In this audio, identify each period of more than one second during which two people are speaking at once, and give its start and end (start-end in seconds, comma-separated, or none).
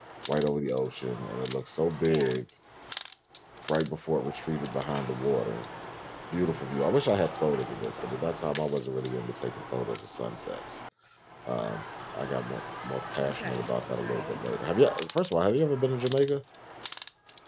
13.2-14.4